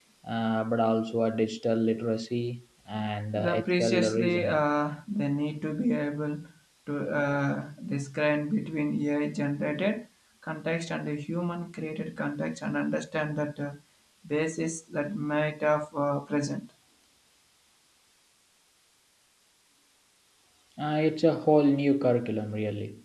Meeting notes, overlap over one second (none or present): present